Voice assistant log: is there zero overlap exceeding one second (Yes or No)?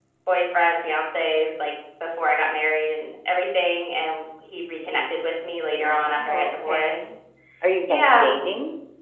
No